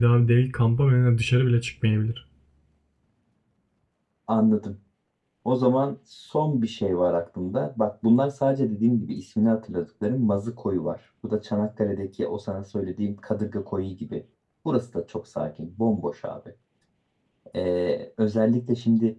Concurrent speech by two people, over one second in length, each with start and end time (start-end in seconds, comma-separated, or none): none